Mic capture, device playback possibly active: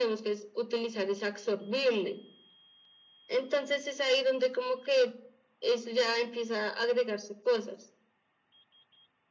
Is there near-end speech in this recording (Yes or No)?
No